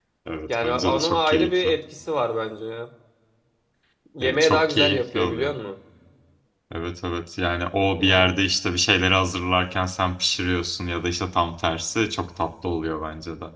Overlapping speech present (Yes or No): Yes